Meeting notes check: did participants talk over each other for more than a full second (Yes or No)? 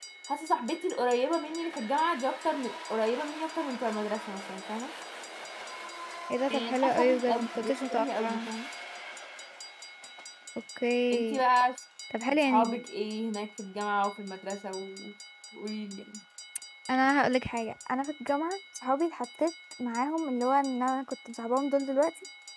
Yes